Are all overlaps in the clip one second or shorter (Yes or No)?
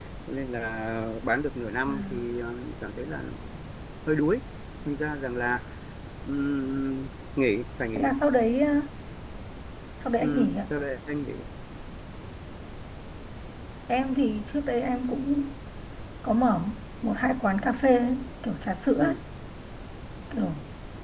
Yes